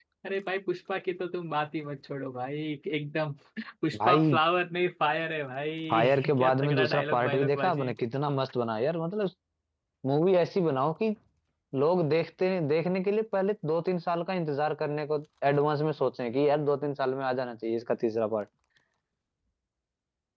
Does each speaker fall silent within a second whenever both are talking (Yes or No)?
No